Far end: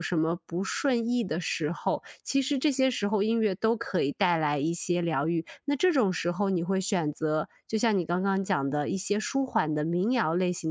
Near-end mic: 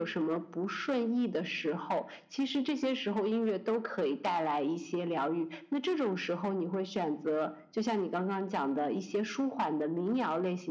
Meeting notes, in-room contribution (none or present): none